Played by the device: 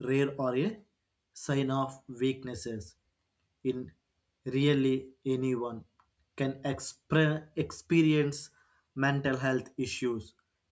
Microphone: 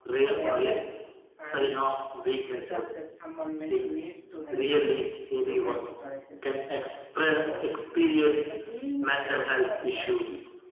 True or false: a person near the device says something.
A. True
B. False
A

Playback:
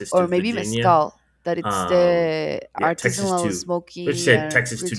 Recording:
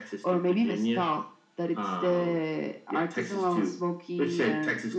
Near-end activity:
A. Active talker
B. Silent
B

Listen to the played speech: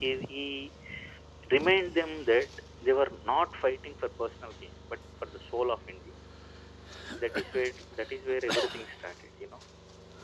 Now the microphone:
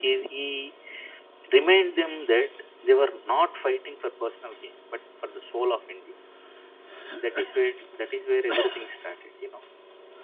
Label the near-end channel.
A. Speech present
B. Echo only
B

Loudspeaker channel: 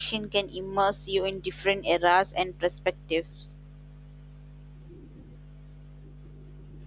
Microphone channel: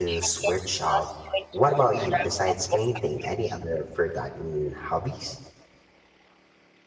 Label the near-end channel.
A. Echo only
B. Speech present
B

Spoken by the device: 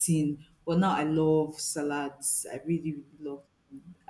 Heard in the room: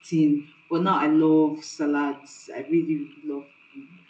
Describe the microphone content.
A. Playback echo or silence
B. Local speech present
A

